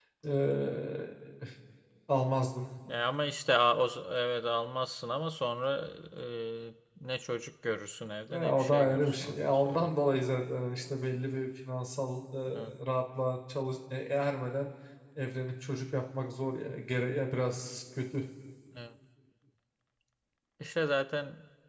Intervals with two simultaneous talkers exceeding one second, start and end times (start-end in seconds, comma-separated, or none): 8.3-9.9